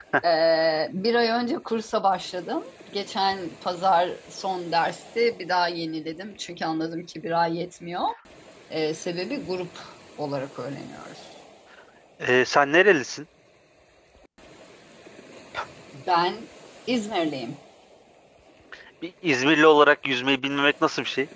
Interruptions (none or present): none